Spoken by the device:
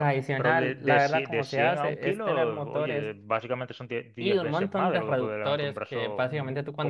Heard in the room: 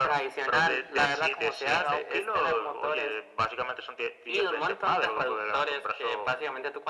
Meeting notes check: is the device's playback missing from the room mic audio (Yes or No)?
No